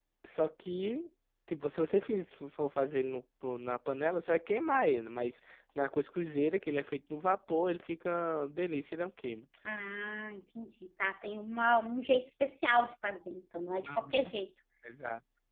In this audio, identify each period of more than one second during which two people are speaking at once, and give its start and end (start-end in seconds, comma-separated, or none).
none